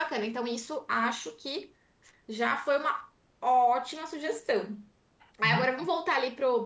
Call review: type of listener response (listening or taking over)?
listening